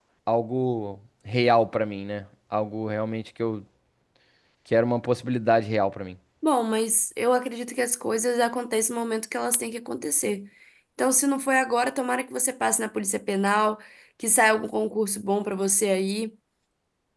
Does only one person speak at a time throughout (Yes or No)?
Yes